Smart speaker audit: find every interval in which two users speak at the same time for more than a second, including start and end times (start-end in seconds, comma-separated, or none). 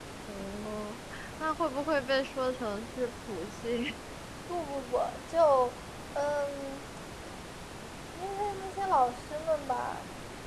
none